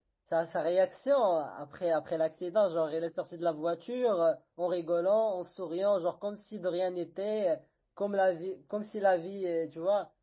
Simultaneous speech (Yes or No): No